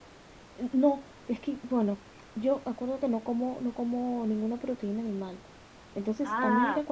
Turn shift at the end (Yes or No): No